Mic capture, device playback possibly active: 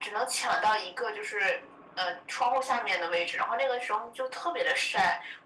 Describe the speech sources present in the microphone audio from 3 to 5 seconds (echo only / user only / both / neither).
echo only